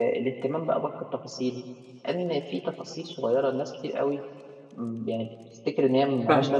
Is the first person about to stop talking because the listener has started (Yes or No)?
Yes